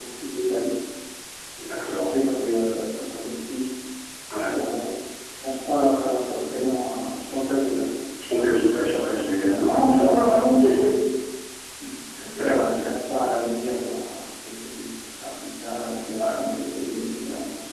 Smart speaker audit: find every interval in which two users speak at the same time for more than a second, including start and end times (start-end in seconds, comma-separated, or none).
9.6-11.0